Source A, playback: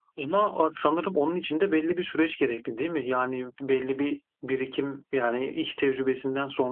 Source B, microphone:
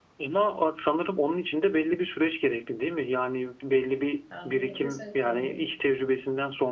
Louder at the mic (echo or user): echo